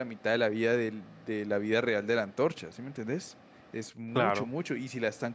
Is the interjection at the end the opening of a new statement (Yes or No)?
No